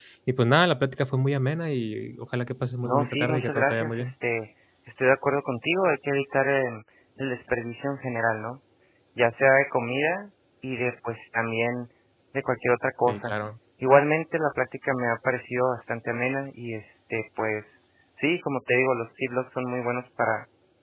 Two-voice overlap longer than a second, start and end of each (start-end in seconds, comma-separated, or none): 2.8-4.1